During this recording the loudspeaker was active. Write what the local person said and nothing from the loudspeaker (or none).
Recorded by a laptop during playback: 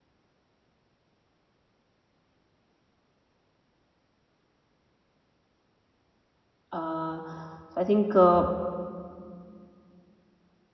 uh, so i think uh,